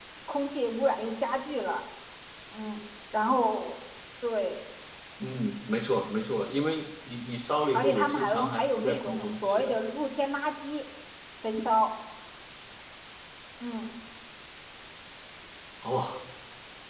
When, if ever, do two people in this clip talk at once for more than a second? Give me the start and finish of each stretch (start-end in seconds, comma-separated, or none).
7.7-9.7